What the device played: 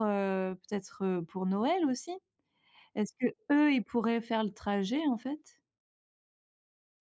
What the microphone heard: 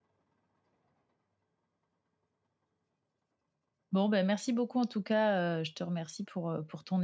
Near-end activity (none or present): present